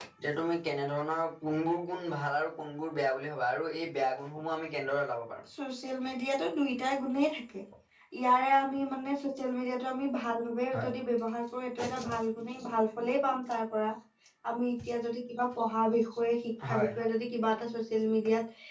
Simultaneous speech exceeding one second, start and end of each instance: none

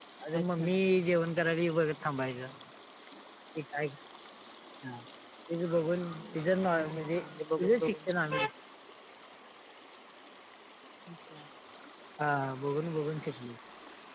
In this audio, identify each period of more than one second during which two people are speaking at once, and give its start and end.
6.7-8.4

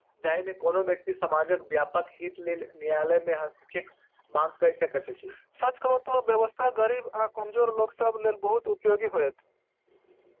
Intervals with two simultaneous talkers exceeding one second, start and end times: none

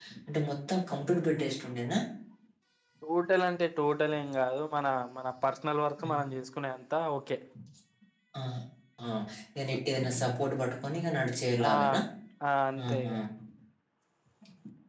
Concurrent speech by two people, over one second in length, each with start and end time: none

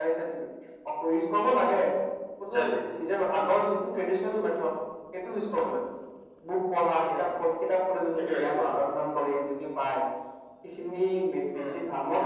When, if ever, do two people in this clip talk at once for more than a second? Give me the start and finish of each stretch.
none

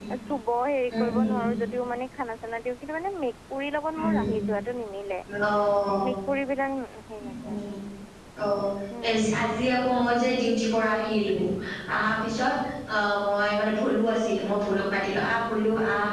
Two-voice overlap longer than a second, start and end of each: none

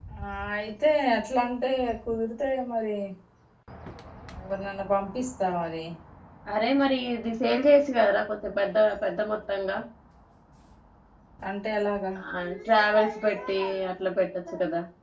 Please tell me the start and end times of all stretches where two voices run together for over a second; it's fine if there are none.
none

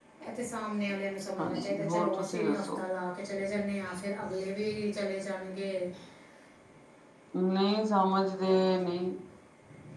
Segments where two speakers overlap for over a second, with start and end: 1.4-2.8

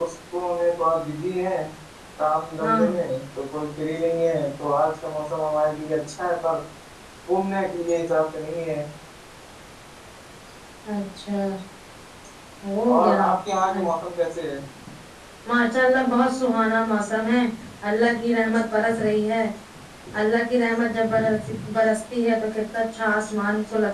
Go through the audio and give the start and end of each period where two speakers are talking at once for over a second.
none

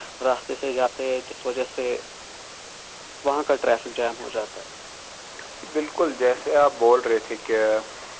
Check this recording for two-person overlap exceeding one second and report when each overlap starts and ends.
none

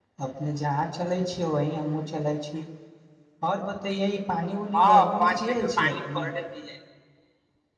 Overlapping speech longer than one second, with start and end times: 4.8-6.3

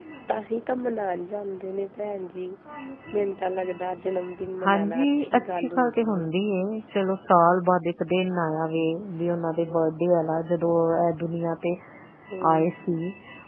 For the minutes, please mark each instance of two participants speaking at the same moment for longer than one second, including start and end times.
4.7-6.3

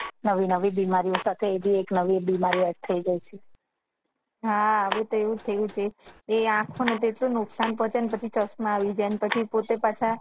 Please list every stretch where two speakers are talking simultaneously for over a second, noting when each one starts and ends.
none

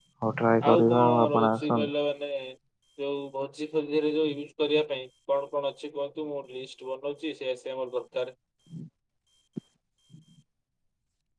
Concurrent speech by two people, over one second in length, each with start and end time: 0.7-1.9

